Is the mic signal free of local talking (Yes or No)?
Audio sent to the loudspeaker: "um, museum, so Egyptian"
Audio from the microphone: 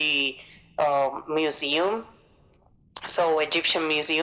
Yes